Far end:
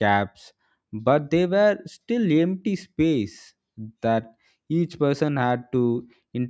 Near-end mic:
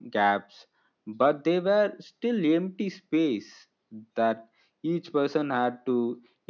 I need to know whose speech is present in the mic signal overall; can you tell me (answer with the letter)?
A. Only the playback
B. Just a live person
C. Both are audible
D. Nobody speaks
A